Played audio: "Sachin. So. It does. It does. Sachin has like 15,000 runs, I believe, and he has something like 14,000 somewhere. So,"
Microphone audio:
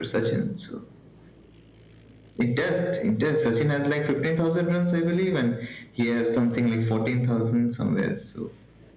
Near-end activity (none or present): none